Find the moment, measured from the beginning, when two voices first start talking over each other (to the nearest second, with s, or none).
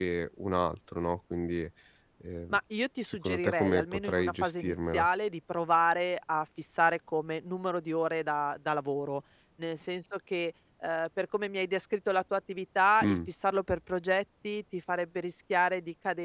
3 s